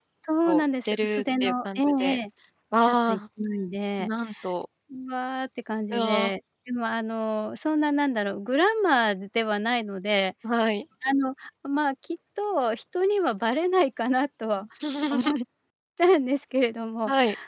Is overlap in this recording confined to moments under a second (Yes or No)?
No